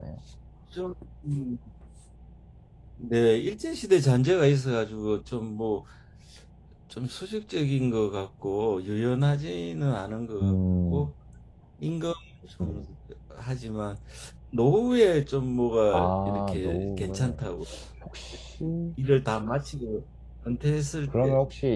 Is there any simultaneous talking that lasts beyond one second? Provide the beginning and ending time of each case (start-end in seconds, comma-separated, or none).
15.9-17.5